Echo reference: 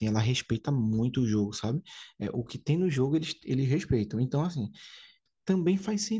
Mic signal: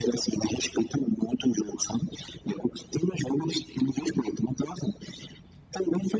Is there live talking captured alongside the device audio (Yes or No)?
No